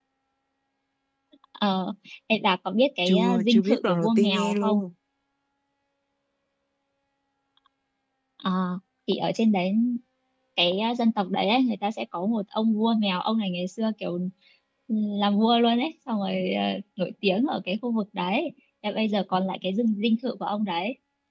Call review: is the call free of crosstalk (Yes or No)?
No